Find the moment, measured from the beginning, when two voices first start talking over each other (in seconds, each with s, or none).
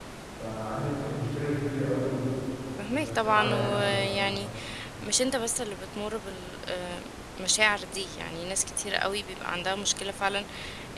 2.9 s